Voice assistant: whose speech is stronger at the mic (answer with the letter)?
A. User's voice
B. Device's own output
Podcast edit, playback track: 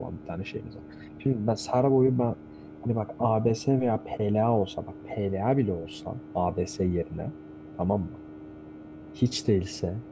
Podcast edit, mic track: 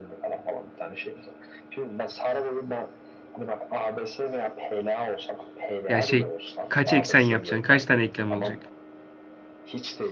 A